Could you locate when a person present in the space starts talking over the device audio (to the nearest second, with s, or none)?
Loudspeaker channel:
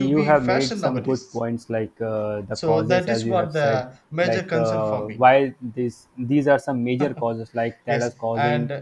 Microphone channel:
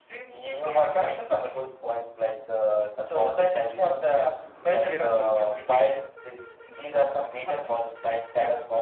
5 s